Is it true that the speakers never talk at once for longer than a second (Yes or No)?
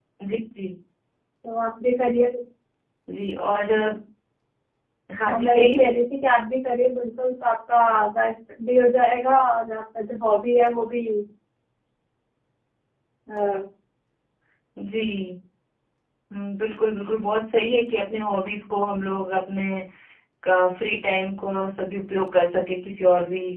Yes